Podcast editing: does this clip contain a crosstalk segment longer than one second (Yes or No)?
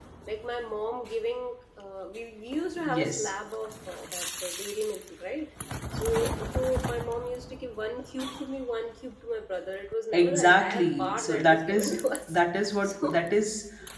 Yes